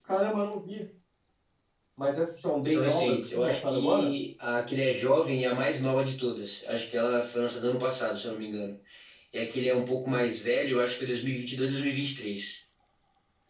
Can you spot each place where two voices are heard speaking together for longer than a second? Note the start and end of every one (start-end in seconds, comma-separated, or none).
2.6-4.1